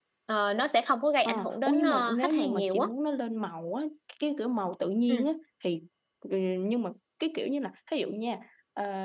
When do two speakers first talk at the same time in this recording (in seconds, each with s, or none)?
1.2 s